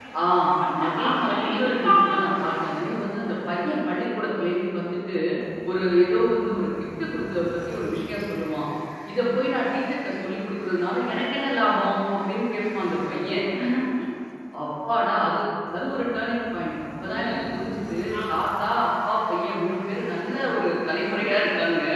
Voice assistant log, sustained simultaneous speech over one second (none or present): present